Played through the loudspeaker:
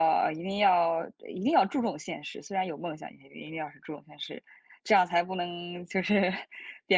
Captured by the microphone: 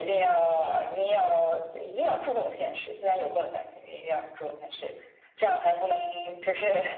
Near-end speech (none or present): none